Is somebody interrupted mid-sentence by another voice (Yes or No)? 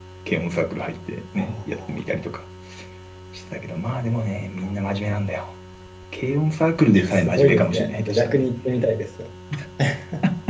Yes